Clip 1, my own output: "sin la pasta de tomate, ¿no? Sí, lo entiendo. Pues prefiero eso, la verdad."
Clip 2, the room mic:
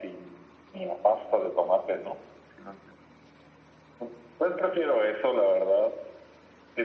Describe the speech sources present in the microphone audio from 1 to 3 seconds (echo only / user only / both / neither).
echo only